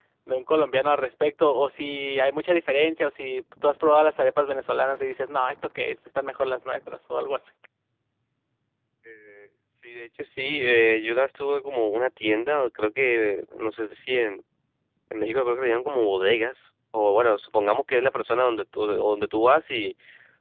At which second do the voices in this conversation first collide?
none

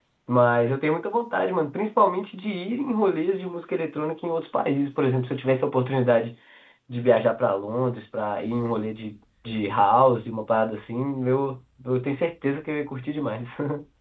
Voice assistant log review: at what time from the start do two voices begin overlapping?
none

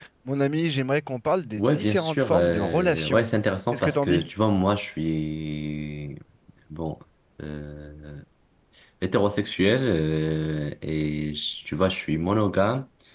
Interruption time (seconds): 1.6 s

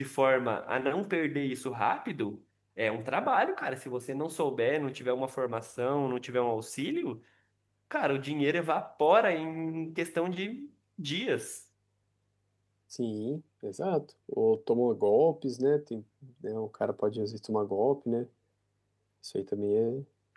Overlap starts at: none

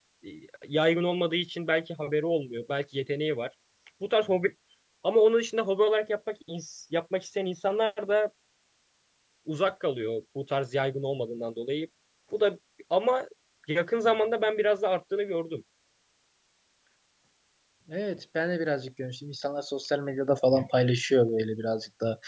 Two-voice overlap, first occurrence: none

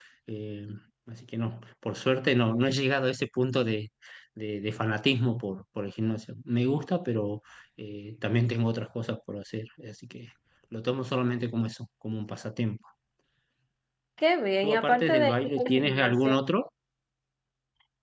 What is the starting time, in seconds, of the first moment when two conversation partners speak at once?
14.6 s

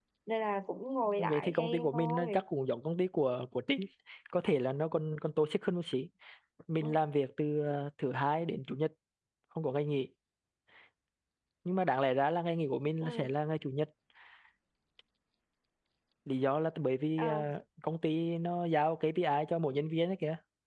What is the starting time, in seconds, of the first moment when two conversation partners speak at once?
1.2 s

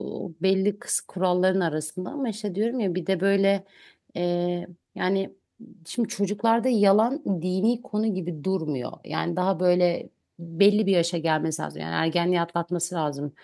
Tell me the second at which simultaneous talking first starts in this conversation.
none

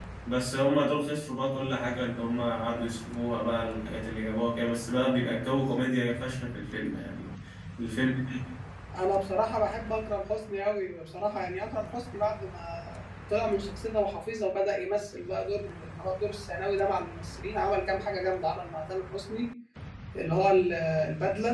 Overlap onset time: none

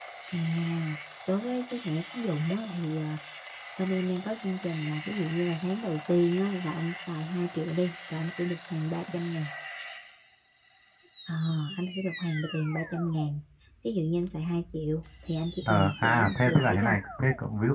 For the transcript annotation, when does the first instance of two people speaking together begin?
15.6 s

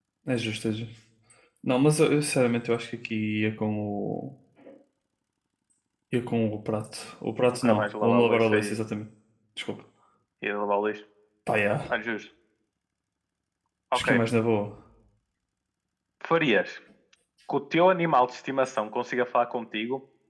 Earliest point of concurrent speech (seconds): 7.5 s

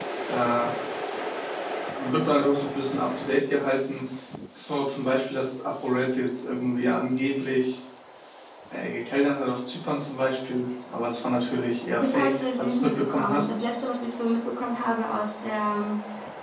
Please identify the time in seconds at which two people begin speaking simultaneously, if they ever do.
12.0 s

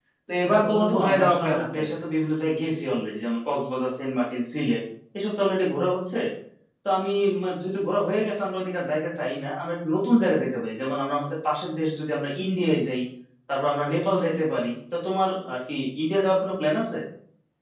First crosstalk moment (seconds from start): 0.5 s

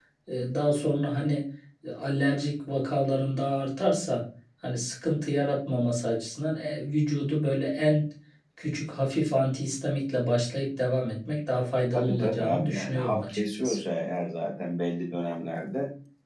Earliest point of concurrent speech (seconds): 11.9 s

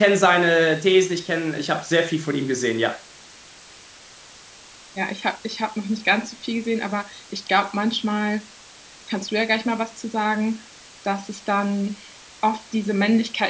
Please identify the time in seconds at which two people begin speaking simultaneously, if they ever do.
none

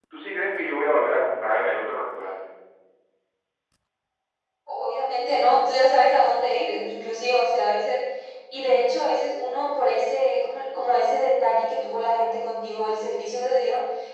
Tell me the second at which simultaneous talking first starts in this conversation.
none

